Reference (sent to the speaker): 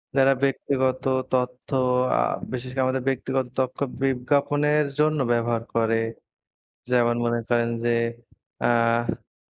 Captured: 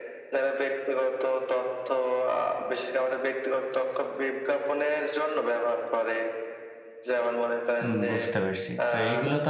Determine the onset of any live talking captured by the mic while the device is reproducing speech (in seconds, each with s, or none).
7.8 s